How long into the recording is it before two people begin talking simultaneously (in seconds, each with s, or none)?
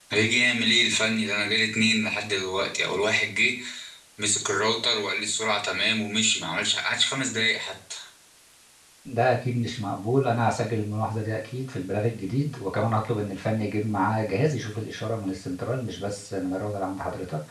none